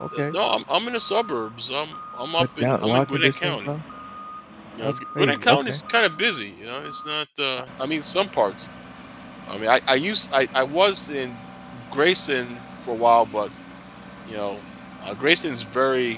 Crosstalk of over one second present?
Yes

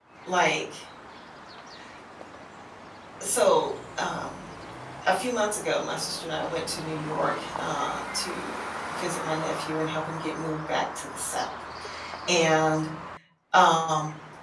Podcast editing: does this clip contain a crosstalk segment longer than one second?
No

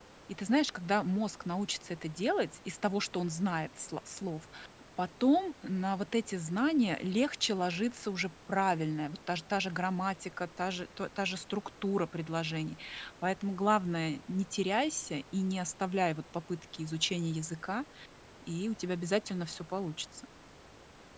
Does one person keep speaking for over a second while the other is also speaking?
No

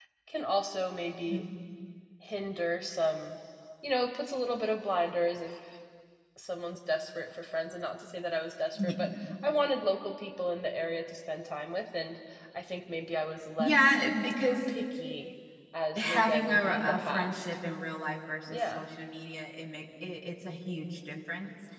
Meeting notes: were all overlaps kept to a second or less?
No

